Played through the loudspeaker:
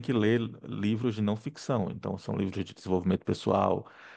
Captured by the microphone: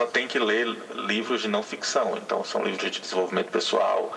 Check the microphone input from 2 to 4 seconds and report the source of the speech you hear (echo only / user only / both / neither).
echo only